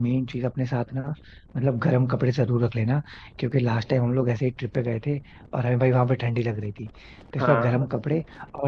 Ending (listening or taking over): listening